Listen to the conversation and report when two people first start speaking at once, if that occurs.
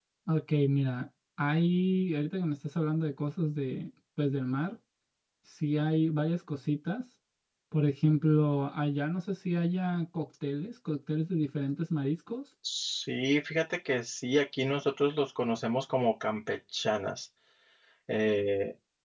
none

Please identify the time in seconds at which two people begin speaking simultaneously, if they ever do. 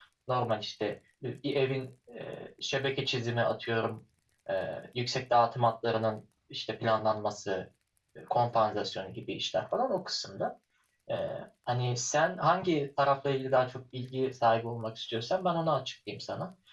none

